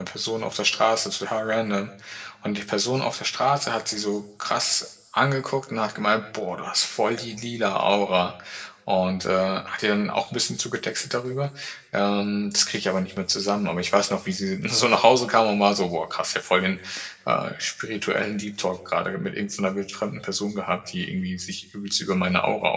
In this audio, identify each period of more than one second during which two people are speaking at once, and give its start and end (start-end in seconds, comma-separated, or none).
none